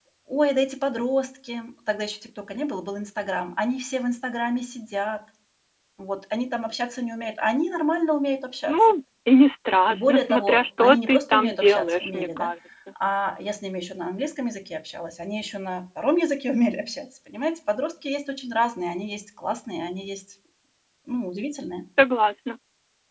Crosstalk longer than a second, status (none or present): present